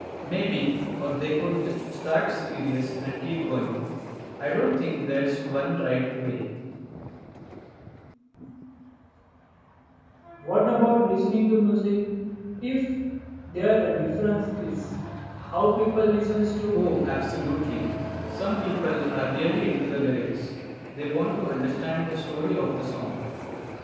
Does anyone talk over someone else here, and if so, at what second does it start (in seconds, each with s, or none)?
none